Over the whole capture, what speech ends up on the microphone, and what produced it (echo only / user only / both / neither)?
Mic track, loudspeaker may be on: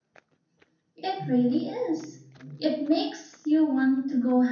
user only